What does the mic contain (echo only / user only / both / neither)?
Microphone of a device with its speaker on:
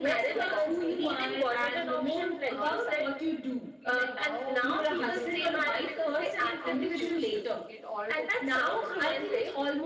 both